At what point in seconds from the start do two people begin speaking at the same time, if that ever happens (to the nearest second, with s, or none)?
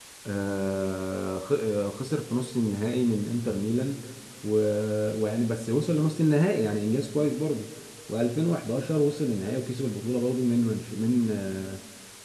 none